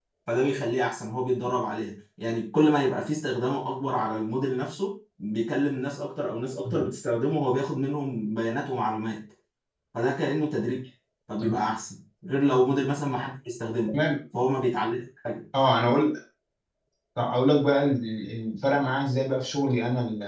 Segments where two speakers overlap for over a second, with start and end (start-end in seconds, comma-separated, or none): none